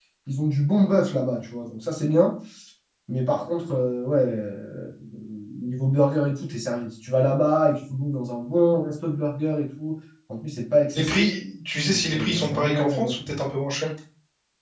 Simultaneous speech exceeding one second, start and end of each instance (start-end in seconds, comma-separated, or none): 11.9-13.1